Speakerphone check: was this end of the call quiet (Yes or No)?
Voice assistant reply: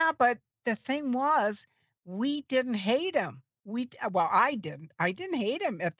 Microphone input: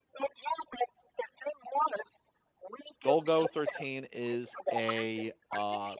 No